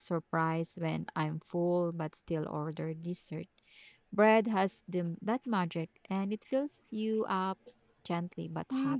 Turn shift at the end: Yes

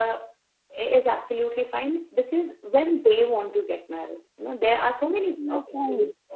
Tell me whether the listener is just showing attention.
Yes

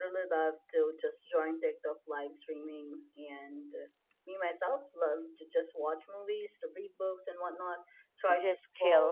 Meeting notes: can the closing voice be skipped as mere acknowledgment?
Yes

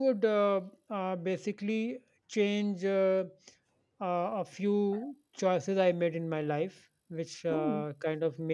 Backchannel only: Yes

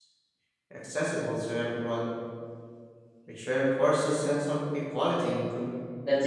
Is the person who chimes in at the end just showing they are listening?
No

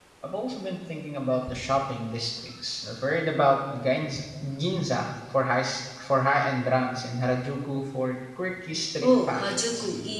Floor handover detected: Yes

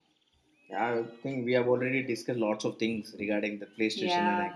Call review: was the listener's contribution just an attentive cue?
No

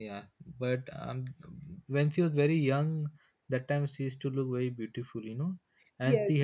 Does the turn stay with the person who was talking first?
No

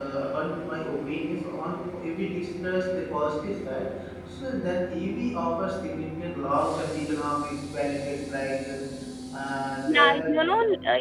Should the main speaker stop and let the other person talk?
Yes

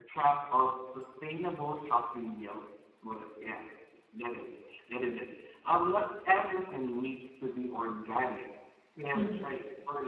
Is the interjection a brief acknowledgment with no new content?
Yes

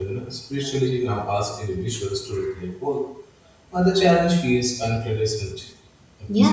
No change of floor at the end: No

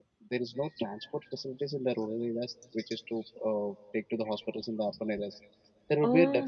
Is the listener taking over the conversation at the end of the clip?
No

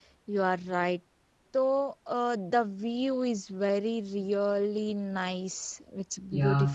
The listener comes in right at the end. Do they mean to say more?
Yes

